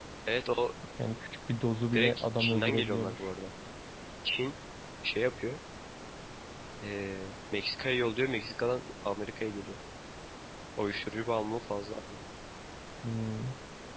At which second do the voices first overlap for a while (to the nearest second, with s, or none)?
2 s